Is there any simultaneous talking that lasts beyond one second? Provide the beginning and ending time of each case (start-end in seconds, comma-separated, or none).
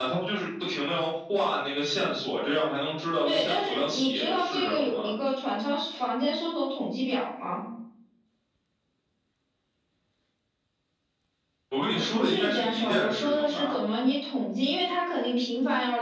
3.2-5.1, 11.9-13.7